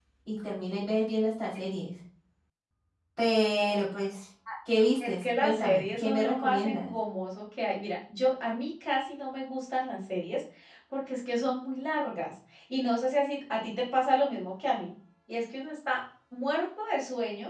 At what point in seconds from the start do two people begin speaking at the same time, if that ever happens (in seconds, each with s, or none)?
5.0 s